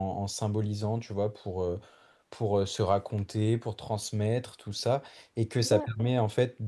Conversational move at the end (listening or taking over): listening